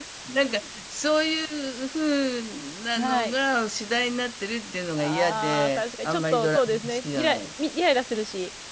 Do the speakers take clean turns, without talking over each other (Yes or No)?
No